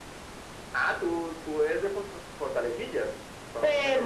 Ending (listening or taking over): taking over